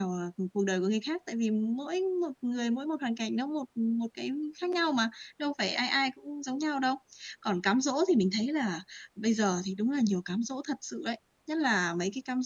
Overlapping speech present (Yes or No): No